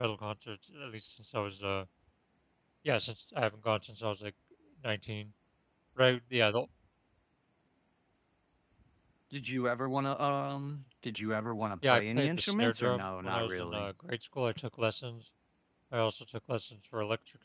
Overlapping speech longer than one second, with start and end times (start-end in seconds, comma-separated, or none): 11.8-13.9